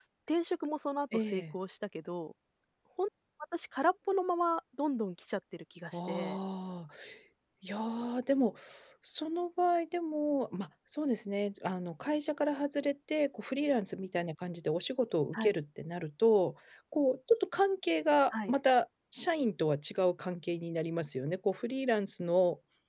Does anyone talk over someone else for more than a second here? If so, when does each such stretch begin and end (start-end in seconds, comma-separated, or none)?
none